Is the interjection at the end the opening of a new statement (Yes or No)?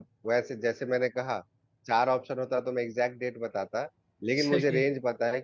No